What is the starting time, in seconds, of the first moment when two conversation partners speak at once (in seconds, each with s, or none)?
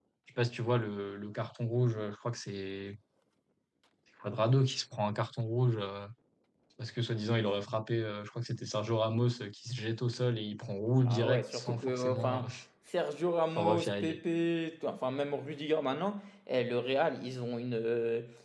11.1 s